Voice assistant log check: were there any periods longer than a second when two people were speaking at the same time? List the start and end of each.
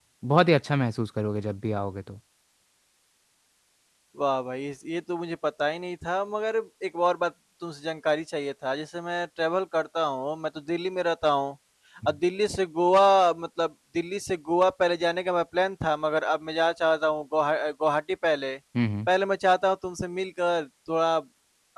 none

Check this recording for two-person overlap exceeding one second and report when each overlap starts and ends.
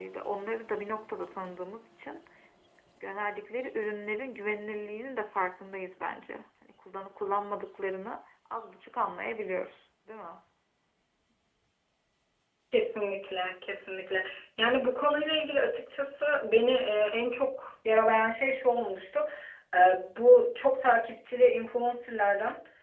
none

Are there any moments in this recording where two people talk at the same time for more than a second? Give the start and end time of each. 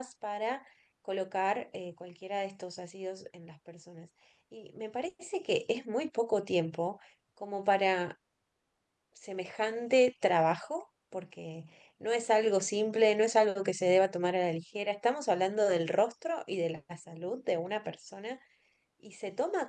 none

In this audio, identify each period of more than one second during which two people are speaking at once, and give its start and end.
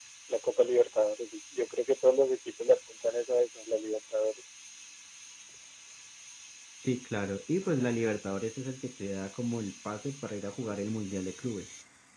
none

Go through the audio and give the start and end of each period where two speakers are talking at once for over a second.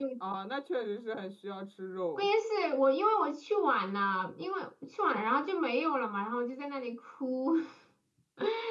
none

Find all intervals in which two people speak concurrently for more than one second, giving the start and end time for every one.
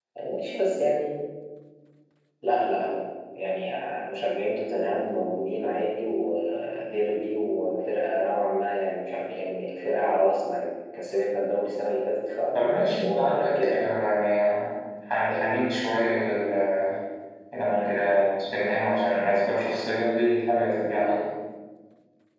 12.5-13.8

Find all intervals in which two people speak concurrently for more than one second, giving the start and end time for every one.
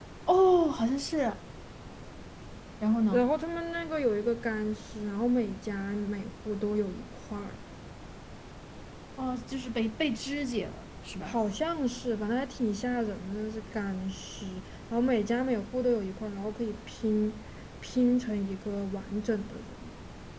none

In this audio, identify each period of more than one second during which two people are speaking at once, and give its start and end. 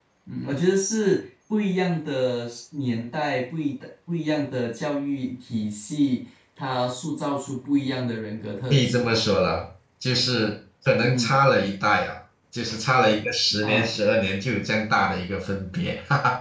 none

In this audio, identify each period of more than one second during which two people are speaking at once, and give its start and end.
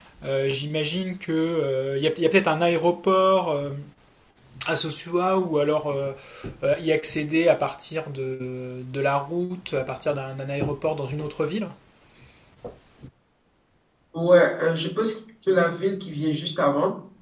none

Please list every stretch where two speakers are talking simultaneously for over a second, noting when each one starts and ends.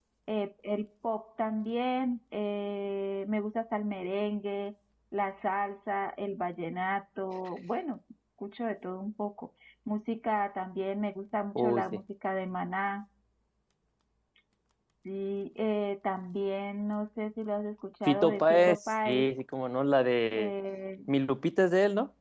18.1-19.3

